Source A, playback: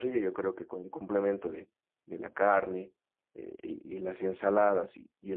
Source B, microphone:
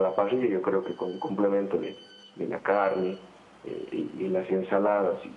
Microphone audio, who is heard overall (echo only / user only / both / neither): echo only